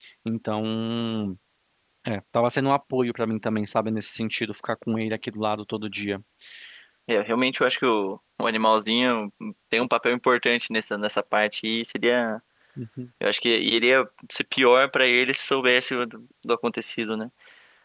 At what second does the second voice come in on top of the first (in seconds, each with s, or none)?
none